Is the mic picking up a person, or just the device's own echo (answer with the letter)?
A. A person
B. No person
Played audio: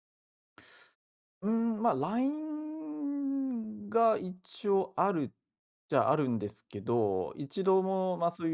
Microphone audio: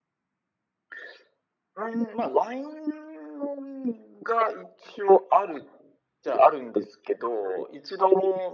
B